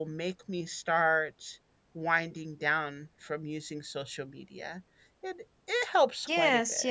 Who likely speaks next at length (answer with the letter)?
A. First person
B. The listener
B